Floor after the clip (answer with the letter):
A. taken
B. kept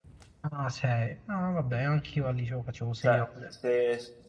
A